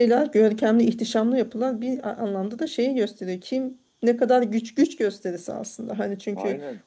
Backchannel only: Yes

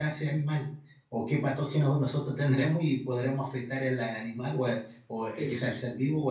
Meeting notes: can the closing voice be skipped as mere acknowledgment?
Yes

